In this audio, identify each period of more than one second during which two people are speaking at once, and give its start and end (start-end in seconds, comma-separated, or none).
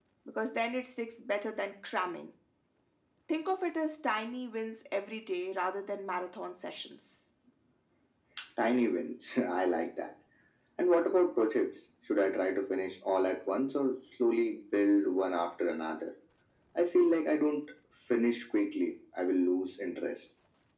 none